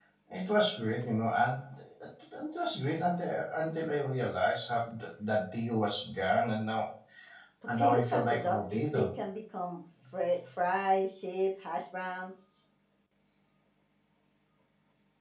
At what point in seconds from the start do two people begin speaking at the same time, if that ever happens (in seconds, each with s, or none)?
7.8 s